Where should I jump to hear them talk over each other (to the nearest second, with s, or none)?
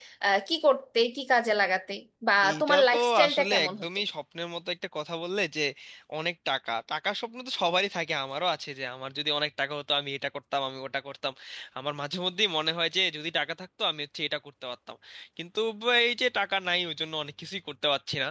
2 s